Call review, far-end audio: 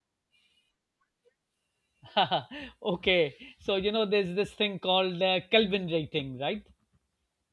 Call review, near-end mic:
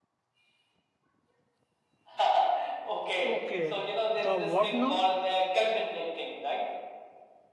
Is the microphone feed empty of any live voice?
No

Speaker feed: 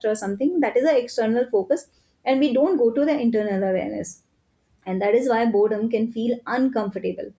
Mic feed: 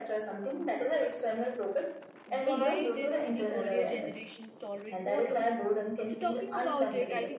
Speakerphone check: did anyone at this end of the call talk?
Yes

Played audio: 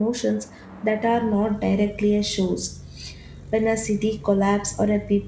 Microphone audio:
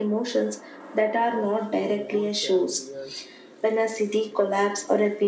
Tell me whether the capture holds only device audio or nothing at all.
No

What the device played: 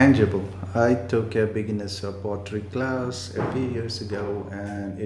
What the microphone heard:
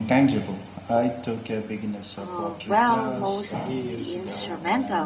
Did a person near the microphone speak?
Yes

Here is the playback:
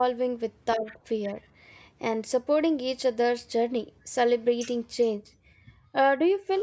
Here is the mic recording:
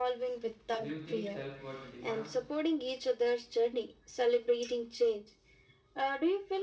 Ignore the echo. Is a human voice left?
Yes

